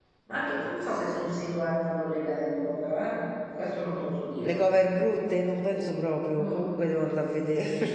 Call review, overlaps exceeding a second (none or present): none